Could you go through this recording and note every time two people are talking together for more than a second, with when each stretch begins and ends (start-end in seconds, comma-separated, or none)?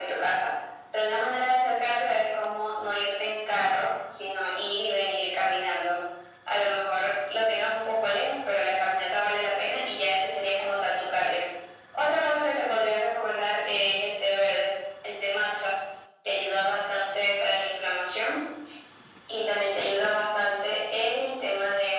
none